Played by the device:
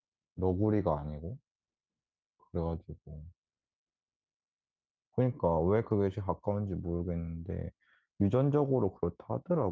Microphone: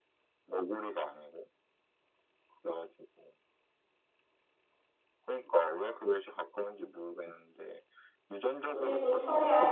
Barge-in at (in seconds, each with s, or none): 8.6 s